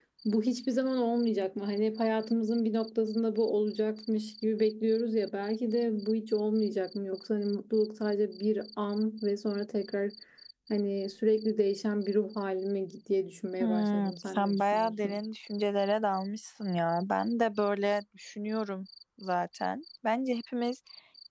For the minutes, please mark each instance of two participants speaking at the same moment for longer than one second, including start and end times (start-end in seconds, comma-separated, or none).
13.6-15.2